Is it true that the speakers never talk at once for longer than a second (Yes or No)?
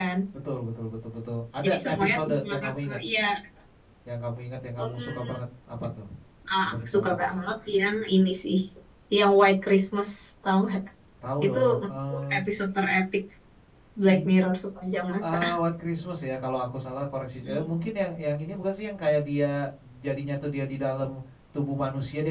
No